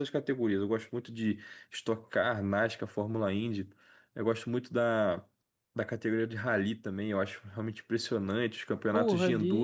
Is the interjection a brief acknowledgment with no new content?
No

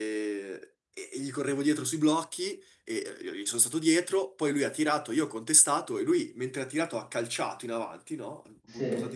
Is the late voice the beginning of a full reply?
No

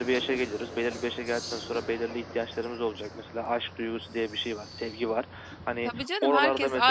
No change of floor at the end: No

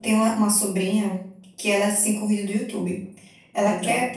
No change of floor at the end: Yes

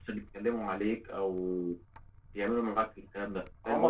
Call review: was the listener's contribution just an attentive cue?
No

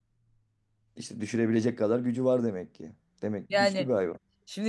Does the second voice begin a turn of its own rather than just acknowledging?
Yes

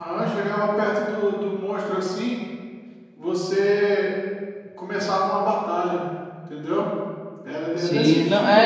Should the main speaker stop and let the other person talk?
Yes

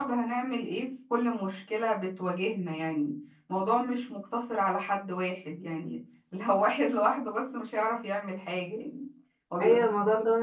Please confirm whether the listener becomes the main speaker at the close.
Yes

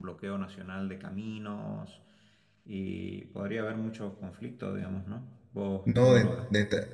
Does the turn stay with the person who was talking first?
No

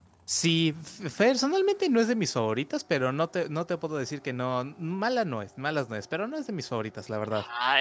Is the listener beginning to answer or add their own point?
Yes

